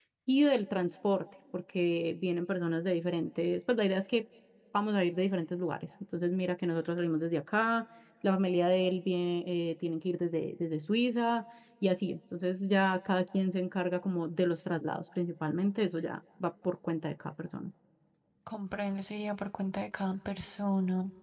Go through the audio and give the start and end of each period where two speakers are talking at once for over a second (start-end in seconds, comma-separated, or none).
none